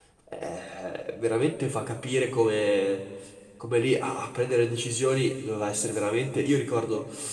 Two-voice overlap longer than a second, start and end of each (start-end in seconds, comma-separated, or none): none